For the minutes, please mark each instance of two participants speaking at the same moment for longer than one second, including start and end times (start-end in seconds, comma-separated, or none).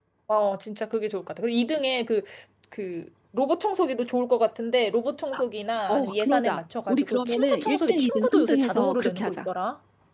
5.9-9.5